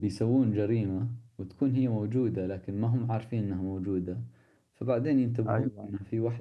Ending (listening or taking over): listening